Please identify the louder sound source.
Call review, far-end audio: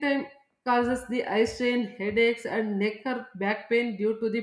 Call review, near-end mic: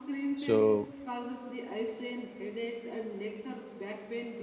user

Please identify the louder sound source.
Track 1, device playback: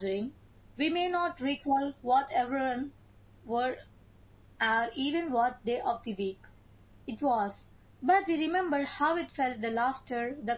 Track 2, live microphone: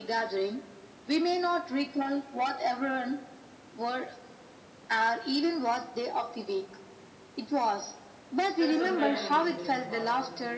echo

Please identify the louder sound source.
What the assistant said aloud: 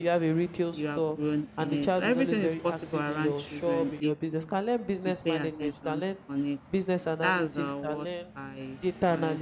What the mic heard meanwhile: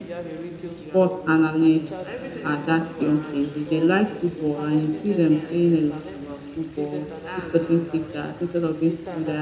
user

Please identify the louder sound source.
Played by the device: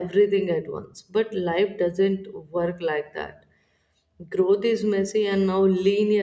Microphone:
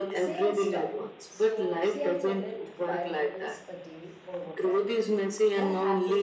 echo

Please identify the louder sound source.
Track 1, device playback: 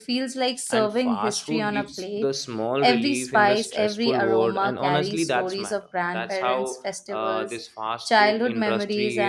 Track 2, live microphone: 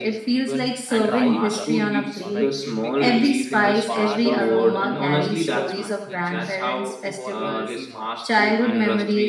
echo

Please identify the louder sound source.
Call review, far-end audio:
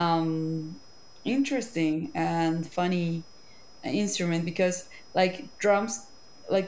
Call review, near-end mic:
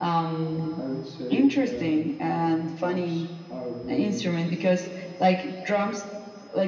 echo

